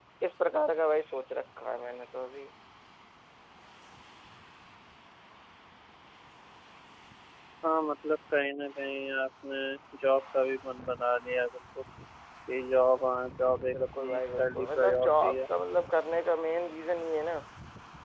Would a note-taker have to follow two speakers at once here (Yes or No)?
Yes